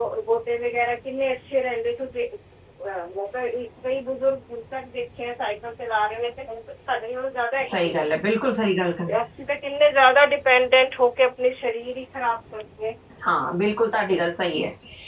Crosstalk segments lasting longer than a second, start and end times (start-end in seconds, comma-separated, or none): none